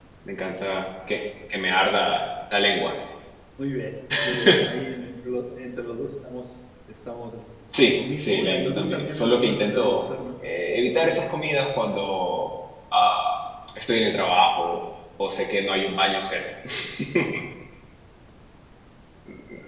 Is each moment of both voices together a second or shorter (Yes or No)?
No